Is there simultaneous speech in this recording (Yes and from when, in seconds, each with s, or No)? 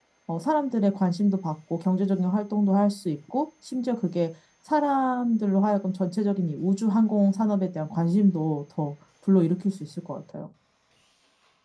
No